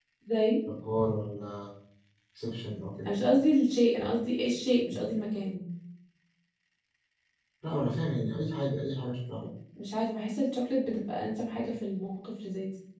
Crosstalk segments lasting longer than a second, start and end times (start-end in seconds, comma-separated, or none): none